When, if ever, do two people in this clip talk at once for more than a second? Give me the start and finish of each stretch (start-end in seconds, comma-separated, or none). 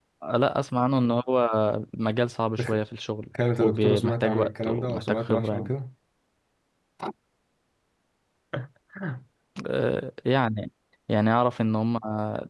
3.6-5.7